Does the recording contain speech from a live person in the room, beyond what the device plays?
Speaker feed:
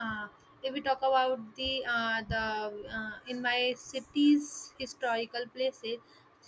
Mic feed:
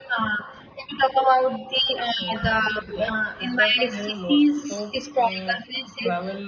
Yes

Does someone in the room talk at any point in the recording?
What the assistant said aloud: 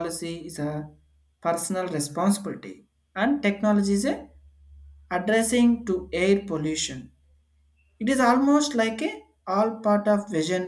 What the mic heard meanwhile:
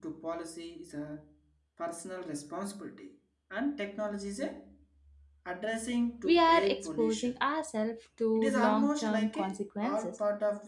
Yes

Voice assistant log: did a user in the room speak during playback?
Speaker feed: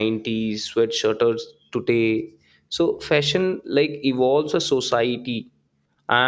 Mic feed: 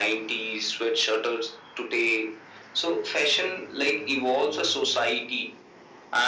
No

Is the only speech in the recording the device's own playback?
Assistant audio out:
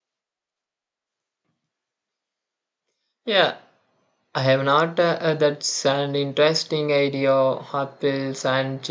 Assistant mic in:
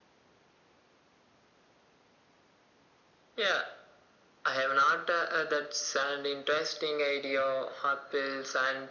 Yes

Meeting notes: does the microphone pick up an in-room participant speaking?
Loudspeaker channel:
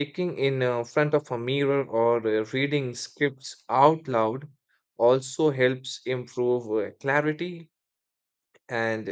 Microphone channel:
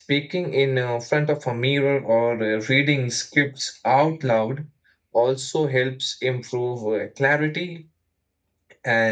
No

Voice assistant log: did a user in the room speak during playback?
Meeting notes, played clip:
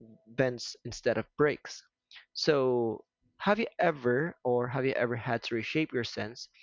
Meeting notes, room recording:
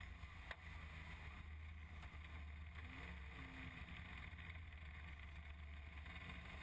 No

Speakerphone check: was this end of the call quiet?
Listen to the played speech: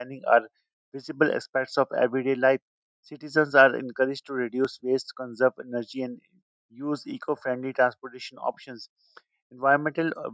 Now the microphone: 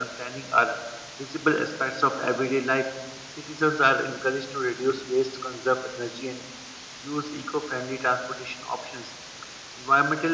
Yes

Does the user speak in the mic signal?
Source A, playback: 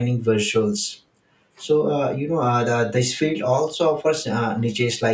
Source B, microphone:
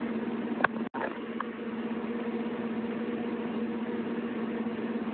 No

